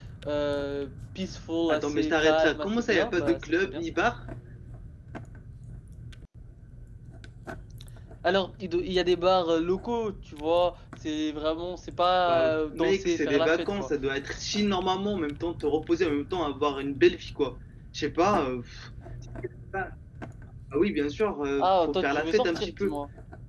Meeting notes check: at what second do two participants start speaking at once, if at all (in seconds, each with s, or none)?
1.7 s